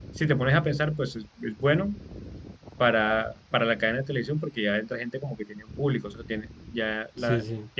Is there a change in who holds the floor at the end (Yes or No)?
No